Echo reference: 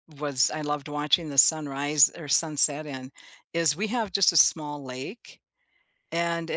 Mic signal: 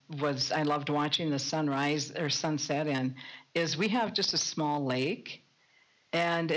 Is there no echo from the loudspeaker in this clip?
No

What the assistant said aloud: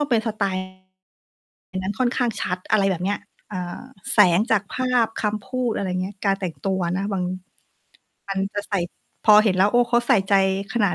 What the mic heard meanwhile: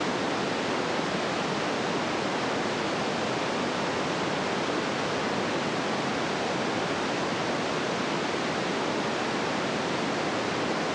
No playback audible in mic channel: Yes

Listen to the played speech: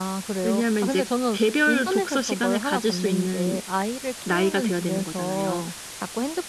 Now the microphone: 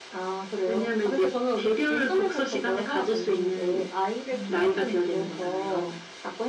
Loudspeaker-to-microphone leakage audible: Yes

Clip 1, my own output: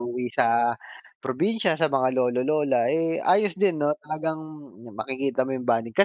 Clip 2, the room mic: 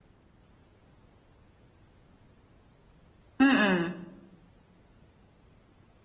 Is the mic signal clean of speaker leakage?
Yes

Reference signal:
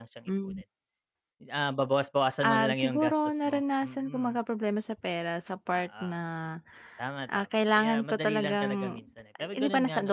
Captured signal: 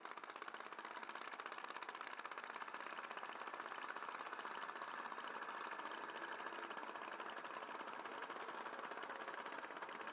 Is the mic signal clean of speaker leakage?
Yes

